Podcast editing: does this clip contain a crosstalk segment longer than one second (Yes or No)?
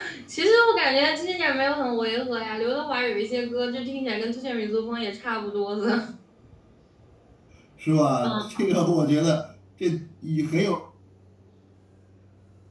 No